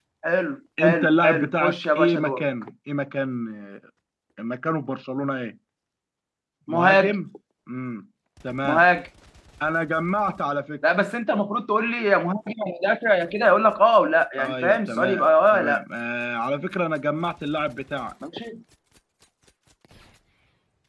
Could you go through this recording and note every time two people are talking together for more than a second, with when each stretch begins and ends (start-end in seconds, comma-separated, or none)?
0.8-2.4, 14.4-15.8